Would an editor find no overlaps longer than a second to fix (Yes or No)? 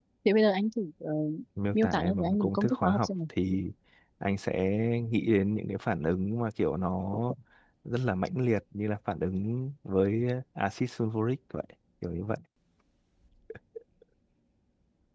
No